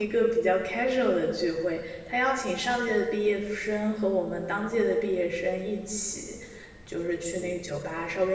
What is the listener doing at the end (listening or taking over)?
listening